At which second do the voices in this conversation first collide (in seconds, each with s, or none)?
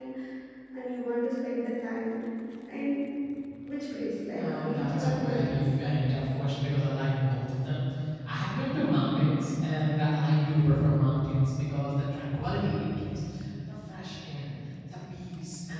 4.3 s